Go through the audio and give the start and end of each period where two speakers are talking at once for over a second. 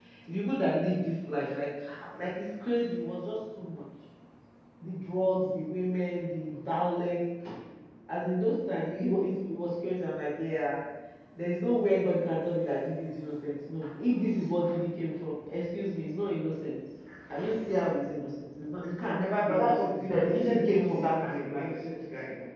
19.5-21.7

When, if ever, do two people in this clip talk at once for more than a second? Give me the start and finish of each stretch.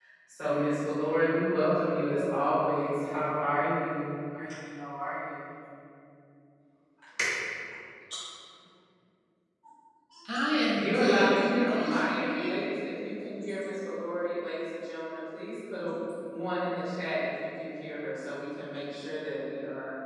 10.8-12.6

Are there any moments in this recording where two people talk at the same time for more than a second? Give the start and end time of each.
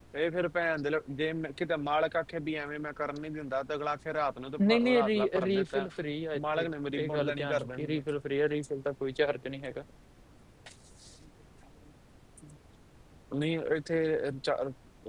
4.6-5.9, 6.6-8.0

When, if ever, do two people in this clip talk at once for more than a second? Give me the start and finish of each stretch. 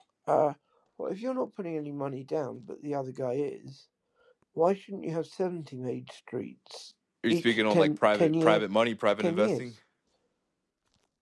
7.3-8.6

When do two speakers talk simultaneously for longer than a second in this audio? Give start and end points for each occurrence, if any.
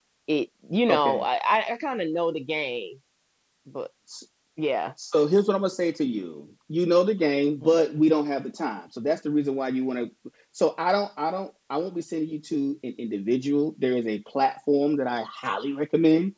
none

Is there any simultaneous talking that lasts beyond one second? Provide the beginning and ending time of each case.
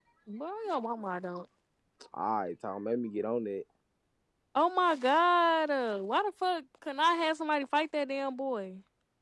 none

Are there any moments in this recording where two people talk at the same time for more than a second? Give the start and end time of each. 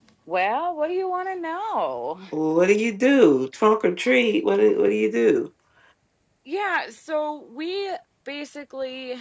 none

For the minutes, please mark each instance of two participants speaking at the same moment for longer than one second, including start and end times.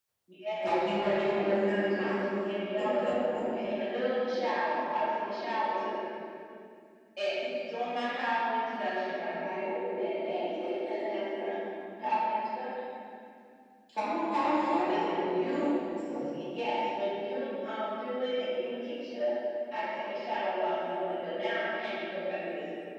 0.6-2.1

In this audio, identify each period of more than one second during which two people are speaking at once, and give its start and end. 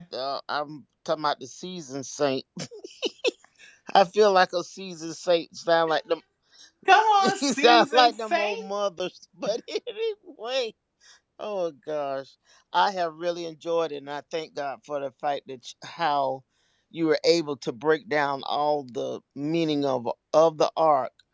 7.4-8.7

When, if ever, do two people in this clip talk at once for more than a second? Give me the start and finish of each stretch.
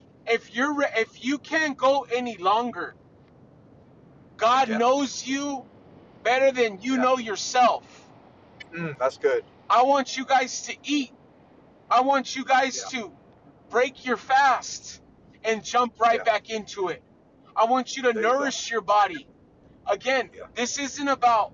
none

